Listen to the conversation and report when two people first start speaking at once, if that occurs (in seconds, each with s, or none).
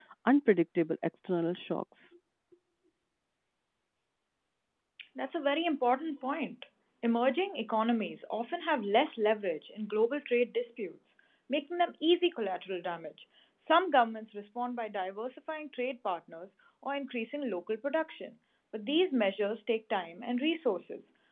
none